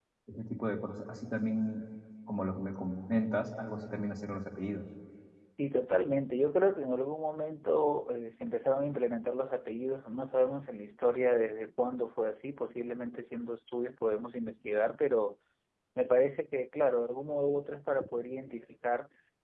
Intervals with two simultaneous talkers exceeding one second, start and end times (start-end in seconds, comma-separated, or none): none